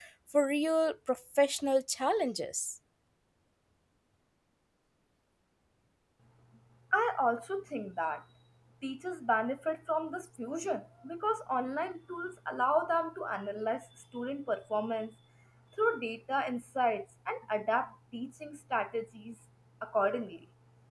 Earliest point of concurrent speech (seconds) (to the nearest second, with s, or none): none